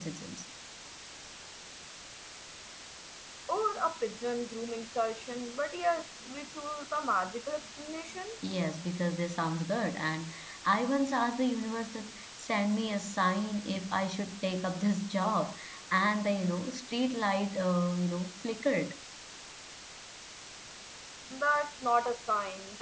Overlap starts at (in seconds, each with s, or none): none